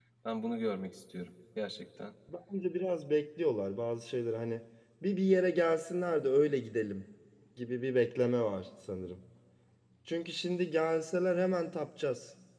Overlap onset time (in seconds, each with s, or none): none